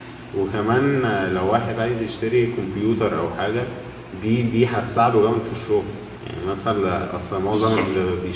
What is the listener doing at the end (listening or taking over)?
listening